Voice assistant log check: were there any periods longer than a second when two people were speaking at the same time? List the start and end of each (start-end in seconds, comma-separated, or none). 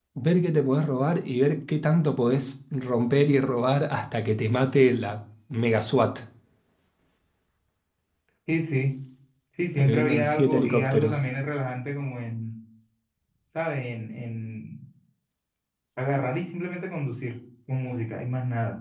9.8-11.2